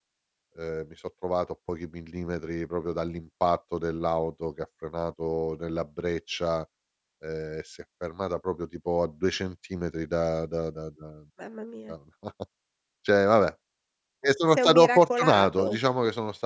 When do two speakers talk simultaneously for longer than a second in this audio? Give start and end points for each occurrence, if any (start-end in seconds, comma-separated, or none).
14.5-15.8